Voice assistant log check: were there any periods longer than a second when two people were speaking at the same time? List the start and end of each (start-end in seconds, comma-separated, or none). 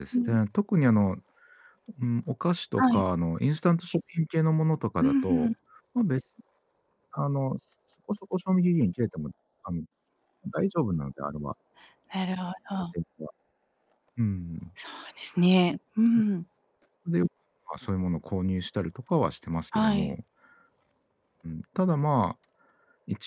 none